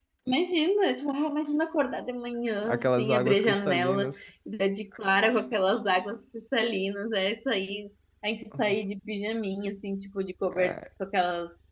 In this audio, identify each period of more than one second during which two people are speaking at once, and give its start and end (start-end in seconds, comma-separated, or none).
2.6-4.3